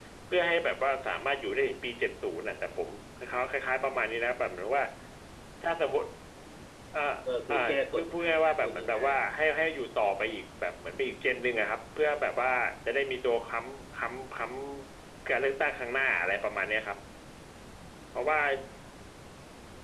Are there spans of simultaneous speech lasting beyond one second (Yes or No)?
Yes